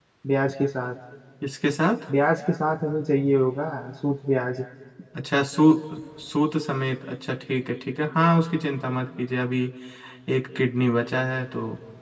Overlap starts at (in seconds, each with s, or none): none